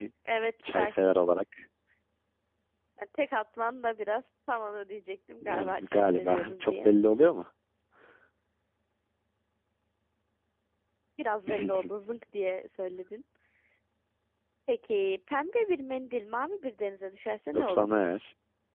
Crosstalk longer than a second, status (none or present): present